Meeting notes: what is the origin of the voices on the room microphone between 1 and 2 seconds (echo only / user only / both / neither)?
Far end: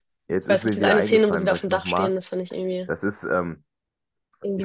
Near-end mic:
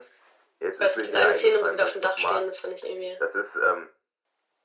echo only